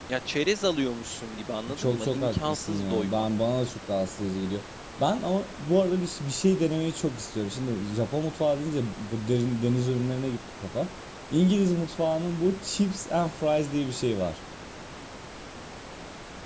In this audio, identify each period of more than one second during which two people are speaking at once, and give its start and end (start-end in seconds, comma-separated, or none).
1.8-3.2